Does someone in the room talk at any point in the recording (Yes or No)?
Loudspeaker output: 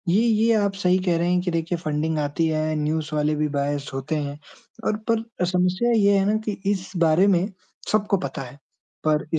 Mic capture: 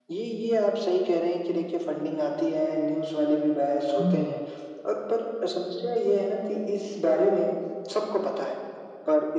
Yes